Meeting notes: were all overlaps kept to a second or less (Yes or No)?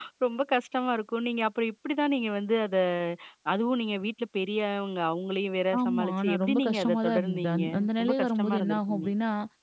No